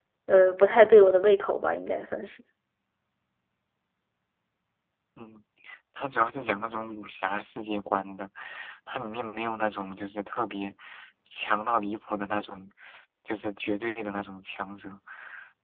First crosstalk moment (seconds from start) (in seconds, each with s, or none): none